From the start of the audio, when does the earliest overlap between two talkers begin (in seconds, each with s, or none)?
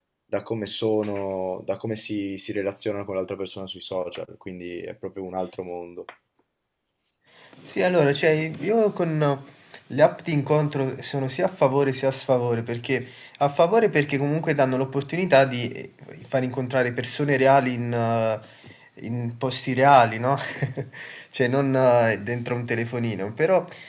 none